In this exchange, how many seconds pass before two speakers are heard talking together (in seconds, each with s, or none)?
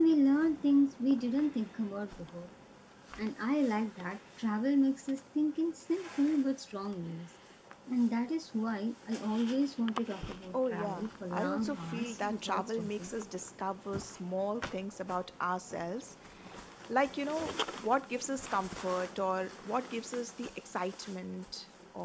10.5 s